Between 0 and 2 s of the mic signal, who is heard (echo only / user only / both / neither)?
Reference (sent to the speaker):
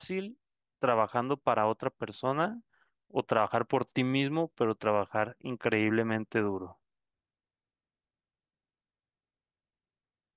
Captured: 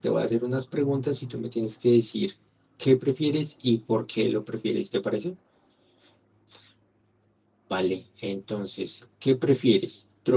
user only